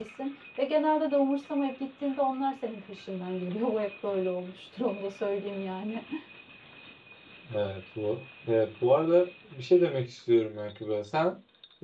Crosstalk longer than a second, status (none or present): none